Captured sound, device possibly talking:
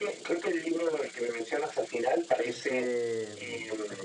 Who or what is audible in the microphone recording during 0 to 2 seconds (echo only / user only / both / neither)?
echo only